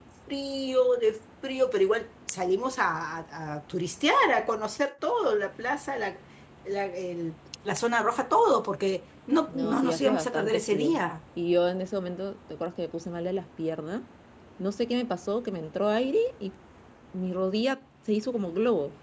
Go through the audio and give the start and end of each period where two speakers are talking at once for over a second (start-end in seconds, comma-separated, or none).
9.5-11.0